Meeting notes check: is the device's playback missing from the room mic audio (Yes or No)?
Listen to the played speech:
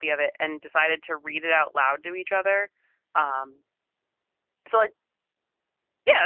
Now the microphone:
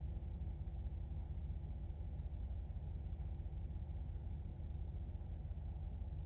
Yes